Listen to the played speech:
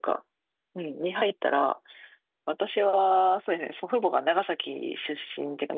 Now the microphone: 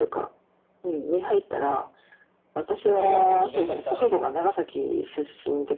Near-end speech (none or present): present